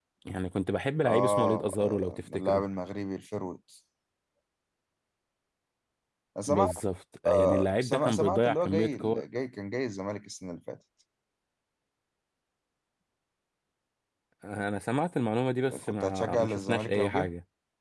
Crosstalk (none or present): present